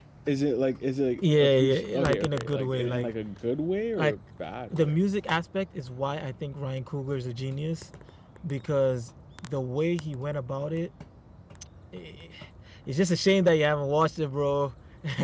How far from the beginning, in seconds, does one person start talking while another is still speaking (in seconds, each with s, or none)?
1.2 s